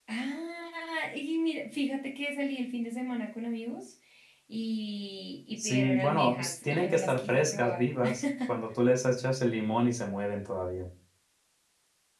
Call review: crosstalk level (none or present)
present